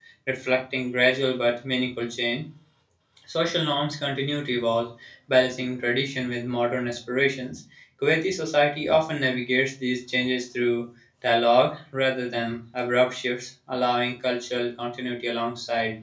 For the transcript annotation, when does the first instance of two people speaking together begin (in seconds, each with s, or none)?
none